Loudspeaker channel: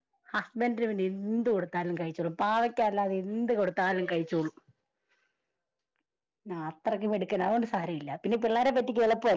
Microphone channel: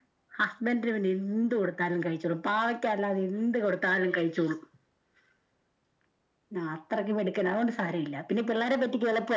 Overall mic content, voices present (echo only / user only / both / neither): echo only